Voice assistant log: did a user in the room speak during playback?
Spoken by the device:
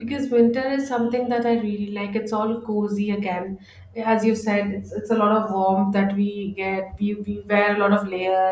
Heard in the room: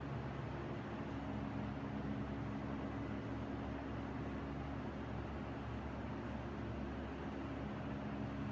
No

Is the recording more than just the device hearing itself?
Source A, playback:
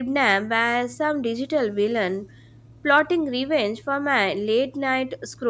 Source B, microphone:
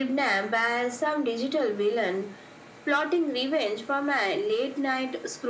No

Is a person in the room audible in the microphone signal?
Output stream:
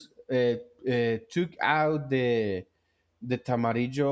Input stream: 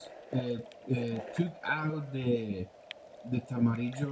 No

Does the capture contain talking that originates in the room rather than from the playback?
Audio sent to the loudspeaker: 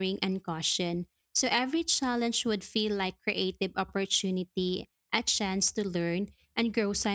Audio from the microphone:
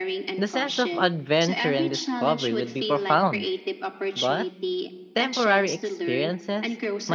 Yes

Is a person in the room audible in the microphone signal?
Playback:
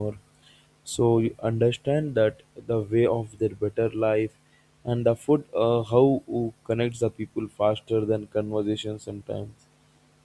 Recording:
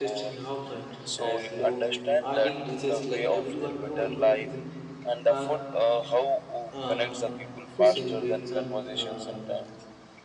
Yes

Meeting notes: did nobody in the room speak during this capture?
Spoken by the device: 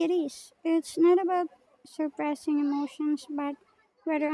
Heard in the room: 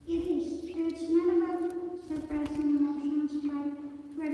Yes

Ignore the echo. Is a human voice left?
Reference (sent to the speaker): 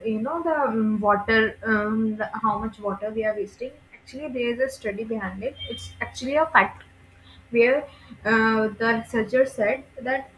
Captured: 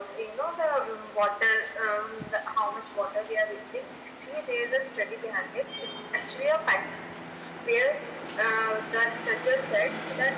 No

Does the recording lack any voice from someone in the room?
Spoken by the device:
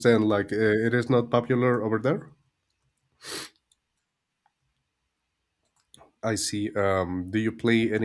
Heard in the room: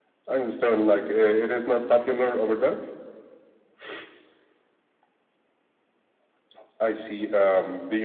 Yes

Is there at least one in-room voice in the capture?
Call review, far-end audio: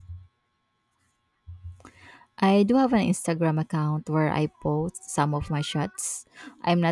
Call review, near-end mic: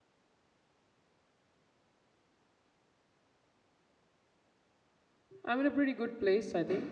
Yes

